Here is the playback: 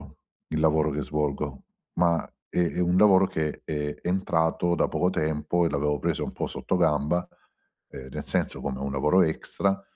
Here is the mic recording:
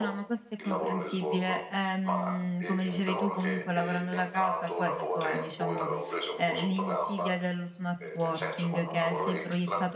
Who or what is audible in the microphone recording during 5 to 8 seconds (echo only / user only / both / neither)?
both